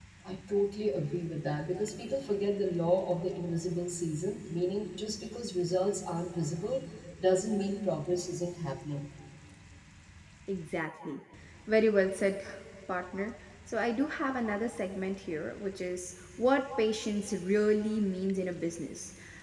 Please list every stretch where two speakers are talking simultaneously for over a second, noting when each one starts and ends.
none

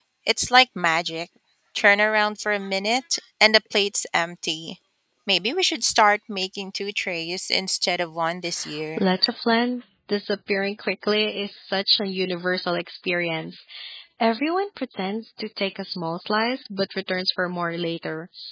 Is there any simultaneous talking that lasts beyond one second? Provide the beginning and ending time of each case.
none

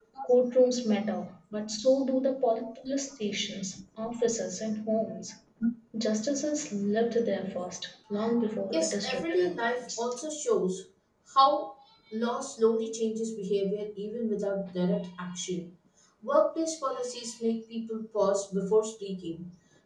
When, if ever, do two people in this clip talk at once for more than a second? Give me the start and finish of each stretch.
8.7-10.0

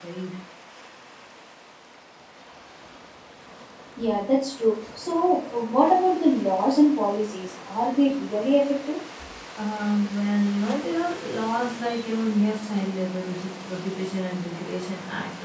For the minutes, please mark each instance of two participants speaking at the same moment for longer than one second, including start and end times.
none

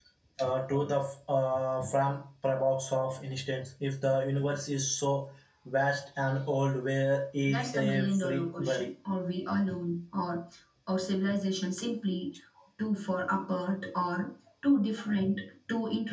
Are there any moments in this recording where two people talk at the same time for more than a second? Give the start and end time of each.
7.5-8.9

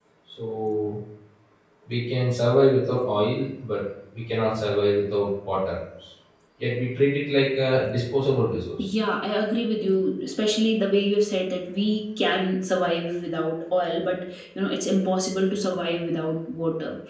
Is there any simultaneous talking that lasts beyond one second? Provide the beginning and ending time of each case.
none

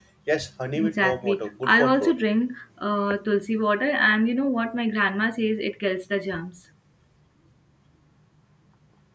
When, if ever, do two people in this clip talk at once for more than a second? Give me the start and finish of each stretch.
0.8-2.2

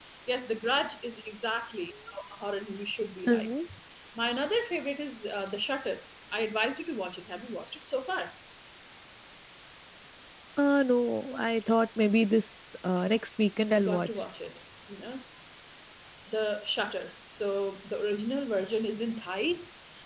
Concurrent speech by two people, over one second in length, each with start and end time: none

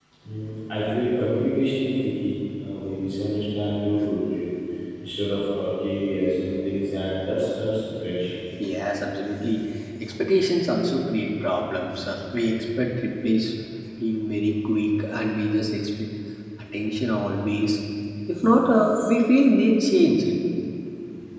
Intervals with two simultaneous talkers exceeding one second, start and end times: none

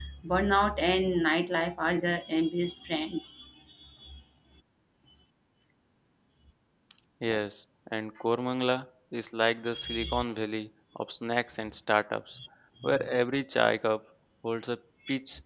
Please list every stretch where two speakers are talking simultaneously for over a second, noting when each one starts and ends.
none

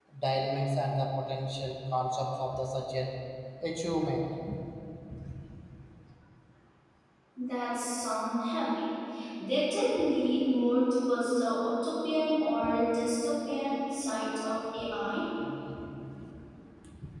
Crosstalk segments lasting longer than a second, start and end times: none

